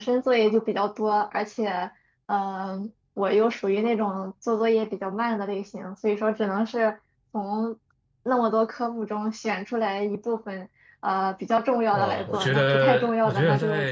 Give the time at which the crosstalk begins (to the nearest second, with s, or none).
12 s